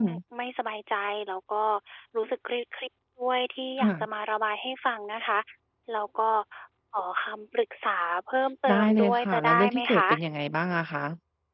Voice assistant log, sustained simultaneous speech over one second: present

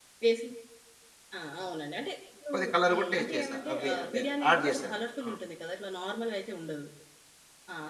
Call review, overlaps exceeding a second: present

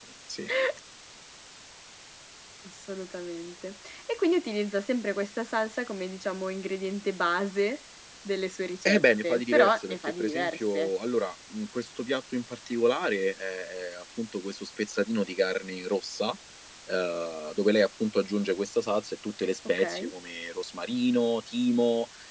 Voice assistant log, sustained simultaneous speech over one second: present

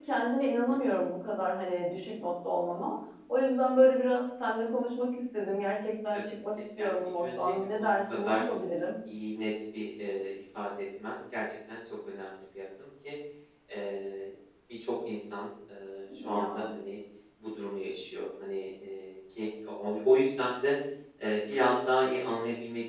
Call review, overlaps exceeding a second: present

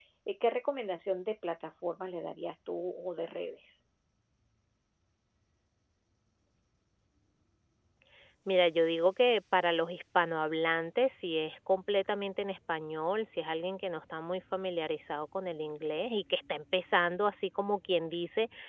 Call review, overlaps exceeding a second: none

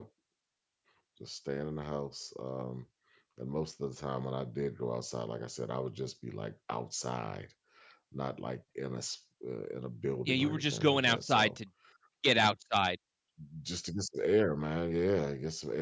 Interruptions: present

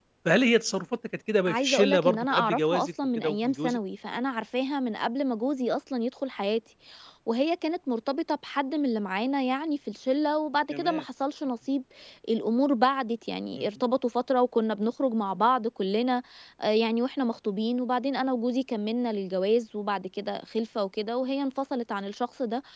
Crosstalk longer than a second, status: present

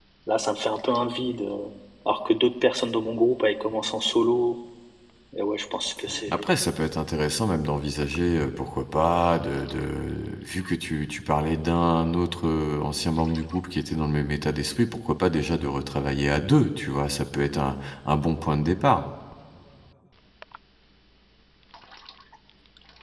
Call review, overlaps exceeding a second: none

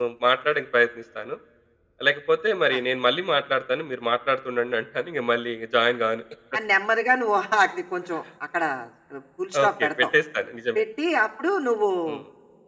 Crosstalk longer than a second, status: none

